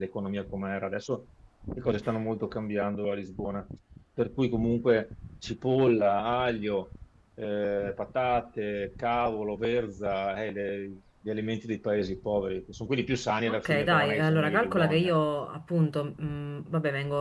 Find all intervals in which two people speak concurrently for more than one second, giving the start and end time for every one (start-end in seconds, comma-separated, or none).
13.5-15.1